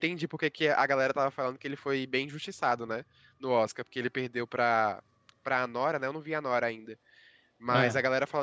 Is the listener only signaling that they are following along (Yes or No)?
Yes